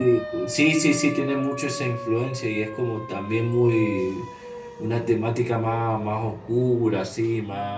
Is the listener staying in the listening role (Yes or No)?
Yes